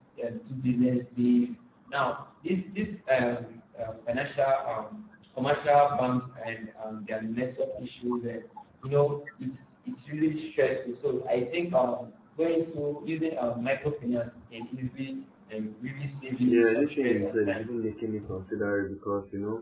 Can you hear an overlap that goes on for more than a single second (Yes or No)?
Yes